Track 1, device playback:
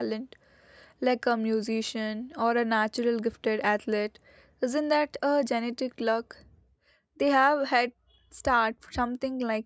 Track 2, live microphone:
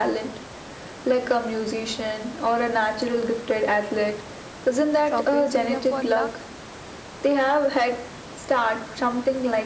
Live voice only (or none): Surface area for luck.